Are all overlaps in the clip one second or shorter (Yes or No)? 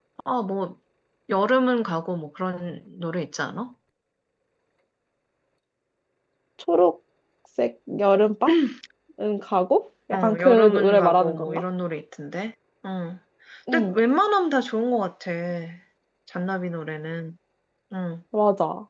No